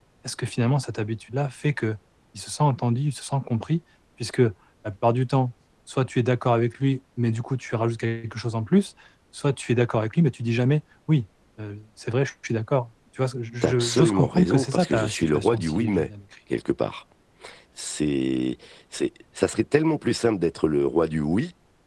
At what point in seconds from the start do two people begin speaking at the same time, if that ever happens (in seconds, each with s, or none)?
13.6 s